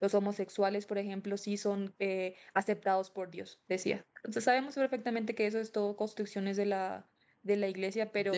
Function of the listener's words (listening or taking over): taking over